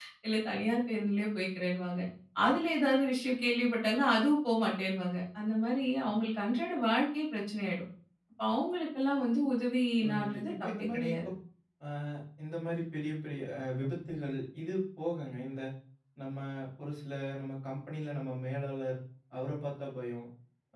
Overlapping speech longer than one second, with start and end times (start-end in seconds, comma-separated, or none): 10.0-11.3